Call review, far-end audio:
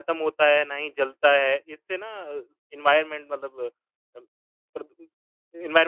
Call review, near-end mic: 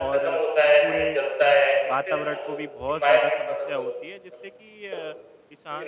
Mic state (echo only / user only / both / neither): both